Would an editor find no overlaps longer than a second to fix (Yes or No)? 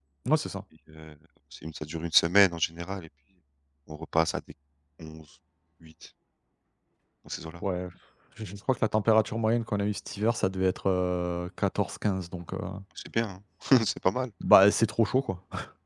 Yes